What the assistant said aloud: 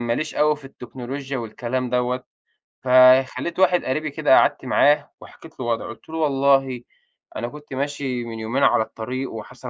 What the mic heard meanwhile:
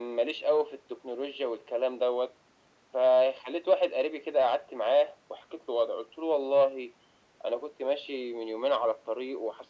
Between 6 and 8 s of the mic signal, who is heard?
echo only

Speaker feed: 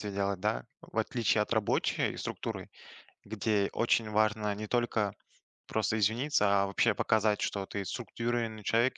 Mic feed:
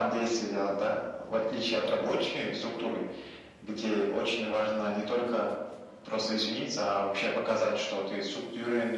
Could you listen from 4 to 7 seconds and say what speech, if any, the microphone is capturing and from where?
echo only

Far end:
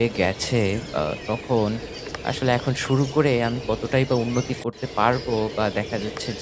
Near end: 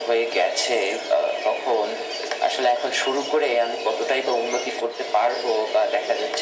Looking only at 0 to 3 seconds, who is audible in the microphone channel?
echo only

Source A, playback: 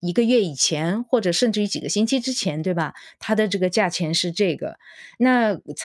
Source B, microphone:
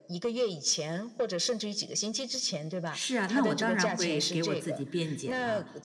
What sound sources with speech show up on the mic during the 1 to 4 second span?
both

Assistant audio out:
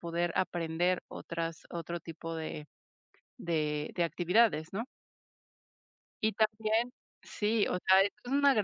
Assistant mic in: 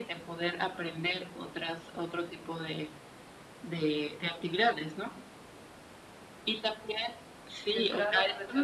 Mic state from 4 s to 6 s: echo only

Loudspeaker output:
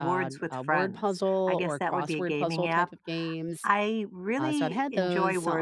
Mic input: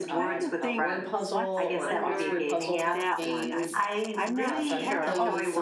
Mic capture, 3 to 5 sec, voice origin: both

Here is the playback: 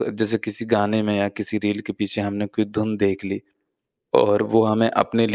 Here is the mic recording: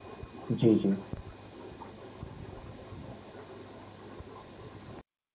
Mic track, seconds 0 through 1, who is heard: user only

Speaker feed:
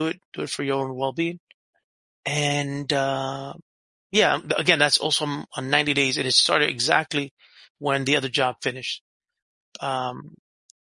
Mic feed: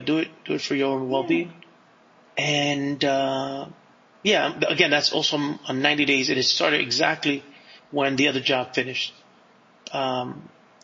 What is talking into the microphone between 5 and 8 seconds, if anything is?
echo only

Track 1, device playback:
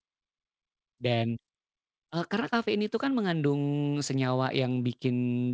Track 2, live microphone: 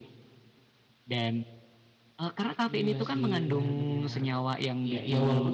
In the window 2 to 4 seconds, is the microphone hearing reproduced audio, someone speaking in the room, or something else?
both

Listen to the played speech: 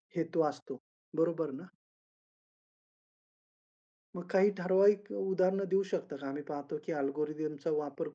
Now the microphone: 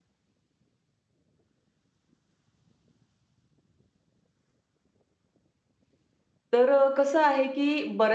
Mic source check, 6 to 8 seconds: user only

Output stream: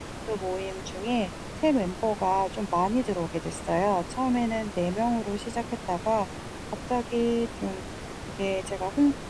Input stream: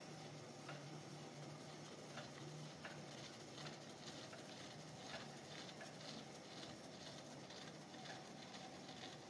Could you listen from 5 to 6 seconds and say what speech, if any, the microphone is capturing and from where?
neither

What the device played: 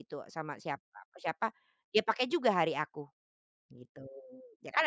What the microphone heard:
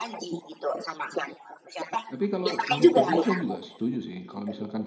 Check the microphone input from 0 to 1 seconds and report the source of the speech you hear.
echo only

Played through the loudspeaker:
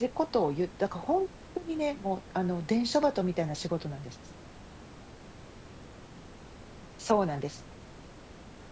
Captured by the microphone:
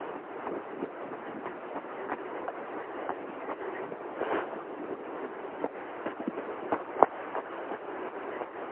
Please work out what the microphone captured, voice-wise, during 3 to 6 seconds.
neither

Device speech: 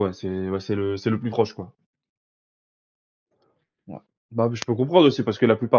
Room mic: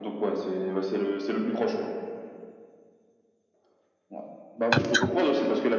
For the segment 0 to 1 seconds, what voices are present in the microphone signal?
echo only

